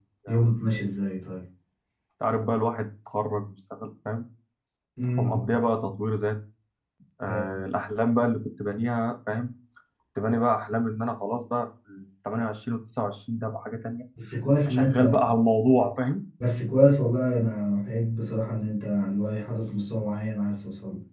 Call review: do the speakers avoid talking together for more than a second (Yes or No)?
Yes